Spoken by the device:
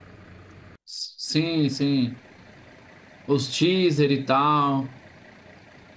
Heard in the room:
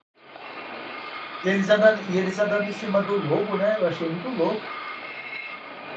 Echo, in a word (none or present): none